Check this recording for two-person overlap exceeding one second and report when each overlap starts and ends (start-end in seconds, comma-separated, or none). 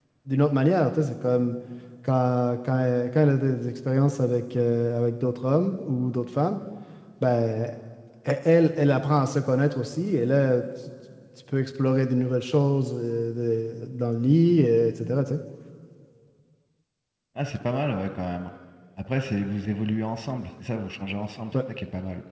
none